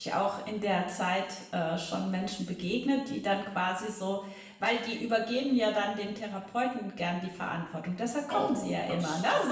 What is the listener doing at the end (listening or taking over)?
taking over